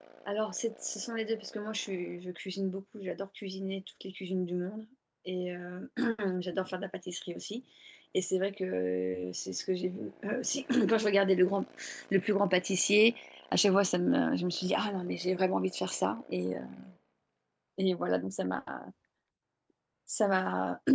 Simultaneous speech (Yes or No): No